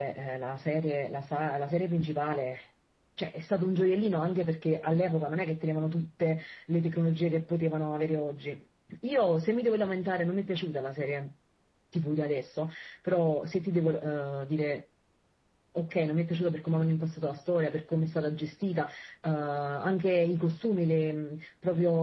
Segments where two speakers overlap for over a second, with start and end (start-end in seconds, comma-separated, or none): none